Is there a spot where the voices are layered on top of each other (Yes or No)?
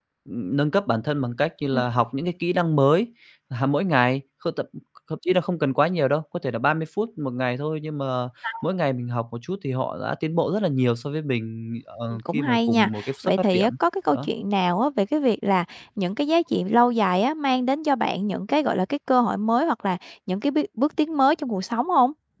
Yes